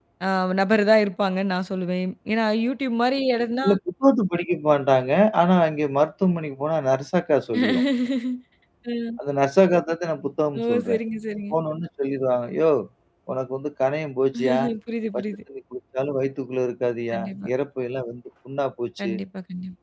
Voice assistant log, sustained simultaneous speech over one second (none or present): none